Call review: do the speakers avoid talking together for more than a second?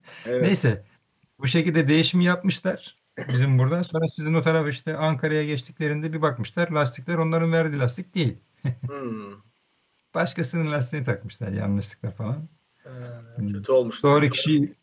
Yes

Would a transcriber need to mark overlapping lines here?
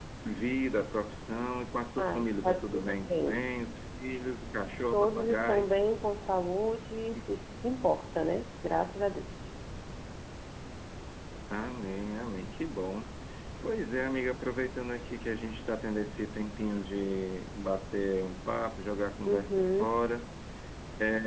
Yes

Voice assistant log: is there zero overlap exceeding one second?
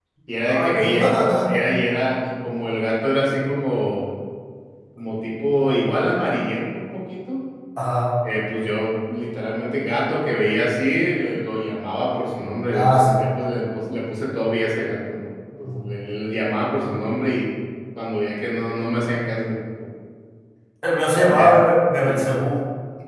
Yes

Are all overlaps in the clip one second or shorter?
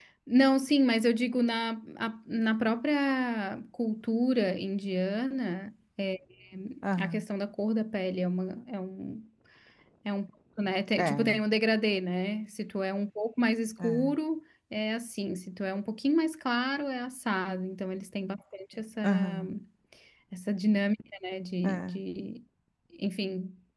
Yes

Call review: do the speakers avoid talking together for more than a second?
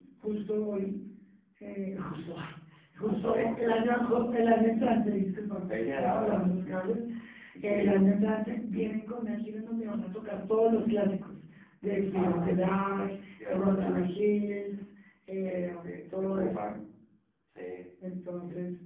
No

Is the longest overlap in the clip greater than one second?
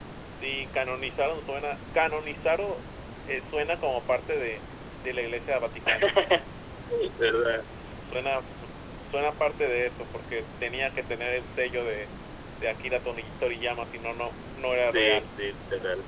No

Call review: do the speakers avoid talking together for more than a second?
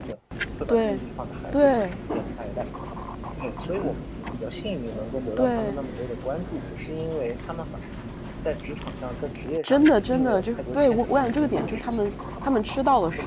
No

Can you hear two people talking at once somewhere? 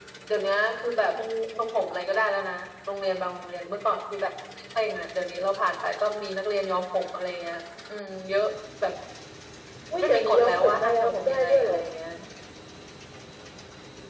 Yes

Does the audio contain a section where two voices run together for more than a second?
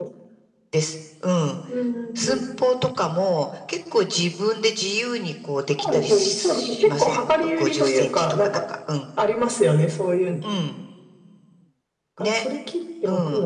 Yes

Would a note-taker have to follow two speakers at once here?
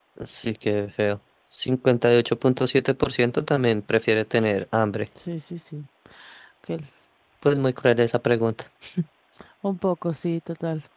No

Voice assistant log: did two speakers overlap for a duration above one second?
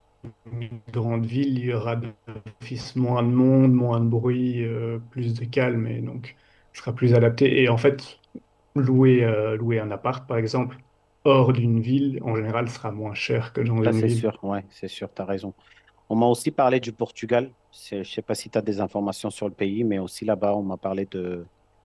No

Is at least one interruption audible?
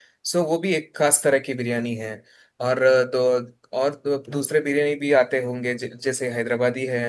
No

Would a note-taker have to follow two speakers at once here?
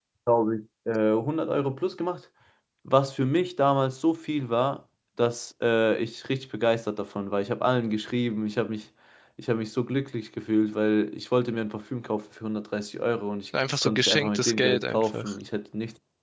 Yes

